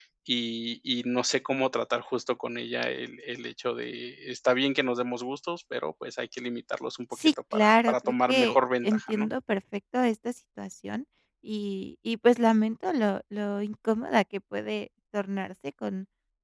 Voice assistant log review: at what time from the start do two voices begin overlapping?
7 s

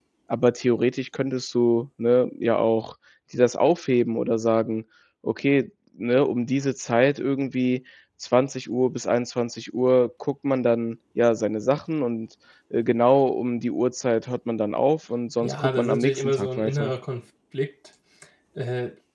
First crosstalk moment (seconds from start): 15 s

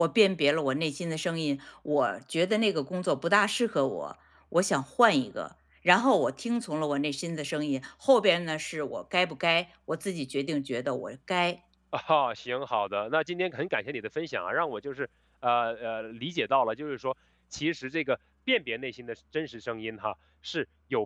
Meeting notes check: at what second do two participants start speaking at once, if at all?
none

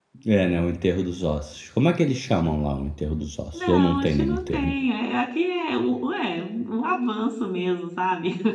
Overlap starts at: 4 s

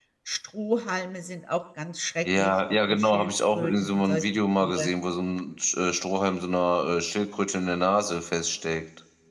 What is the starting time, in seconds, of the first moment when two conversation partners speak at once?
2 s

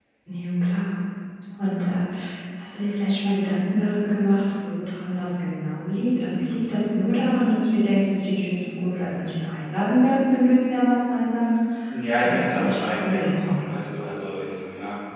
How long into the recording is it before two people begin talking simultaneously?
12 s

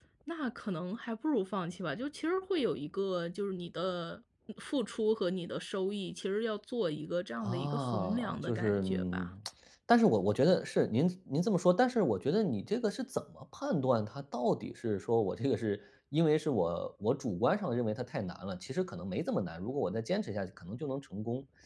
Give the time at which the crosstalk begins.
7 s

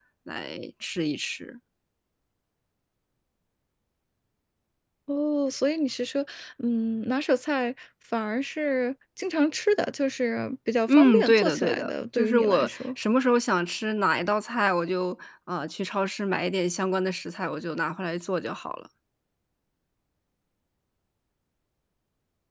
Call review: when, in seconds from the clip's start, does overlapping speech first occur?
11 s

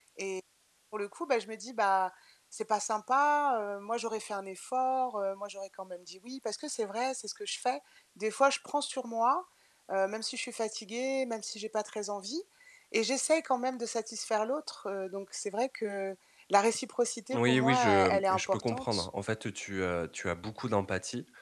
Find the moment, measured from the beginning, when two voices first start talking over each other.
17 s

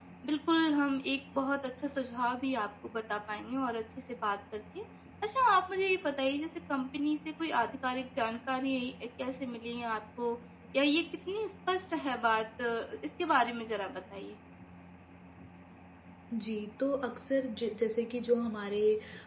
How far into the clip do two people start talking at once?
none

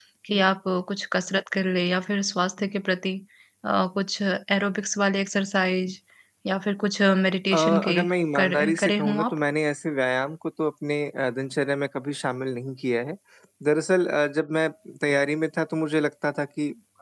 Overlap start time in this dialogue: 8 s

